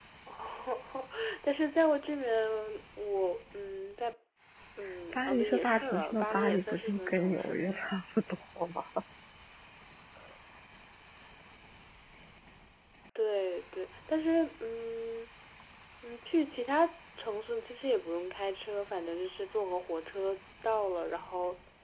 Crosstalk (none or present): present